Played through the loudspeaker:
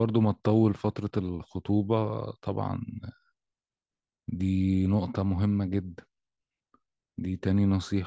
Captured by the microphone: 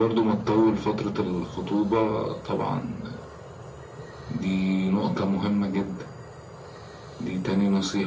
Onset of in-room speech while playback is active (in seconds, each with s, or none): none